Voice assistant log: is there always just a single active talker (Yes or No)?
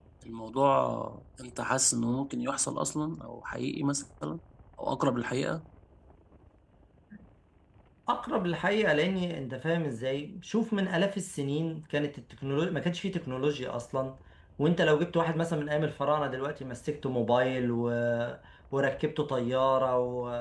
Yes